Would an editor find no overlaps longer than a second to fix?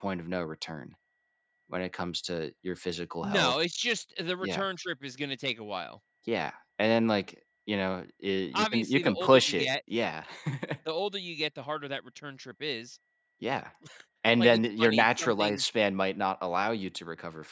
No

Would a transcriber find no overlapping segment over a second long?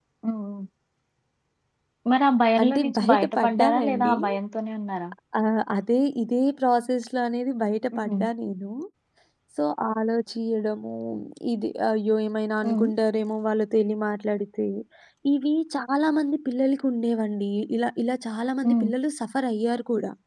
No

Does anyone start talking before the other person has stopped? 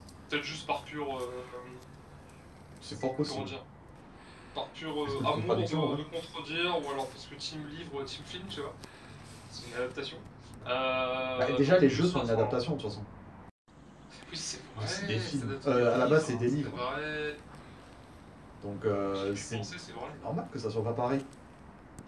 Yes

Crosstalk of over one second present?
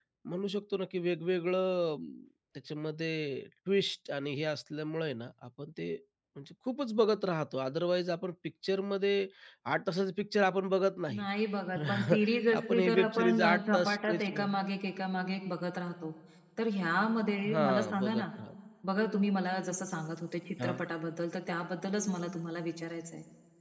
Yes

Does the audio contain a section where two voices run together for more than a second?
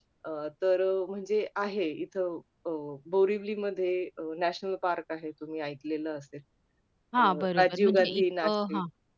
Yes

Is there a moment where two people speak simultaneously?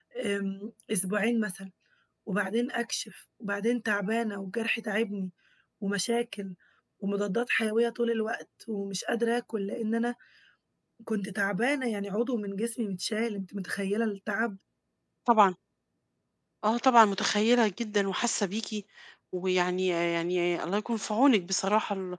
No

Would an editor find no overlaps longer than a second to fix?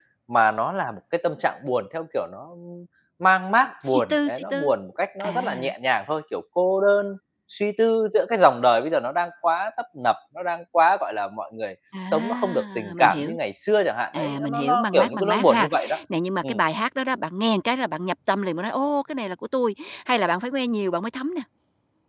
No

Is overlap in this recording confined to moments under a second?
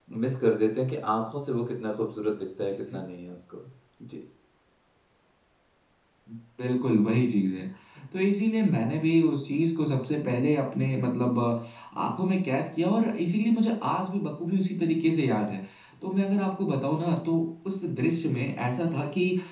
Yes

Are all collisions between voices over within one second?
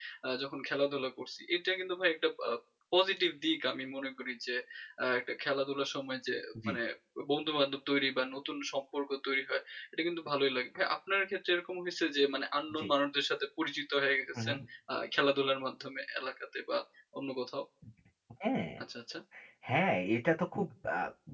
Yes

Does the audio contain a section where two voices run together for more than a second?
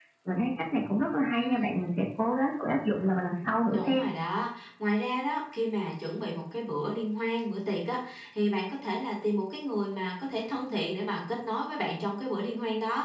No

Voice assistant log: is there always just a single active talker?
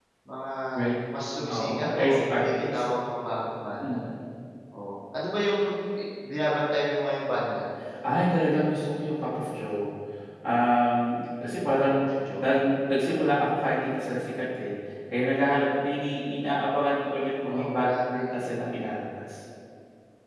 No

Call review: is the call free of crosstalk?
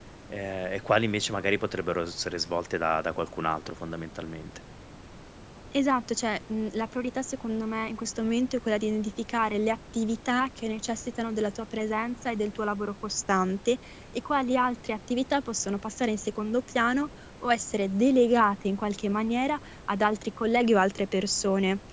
Yes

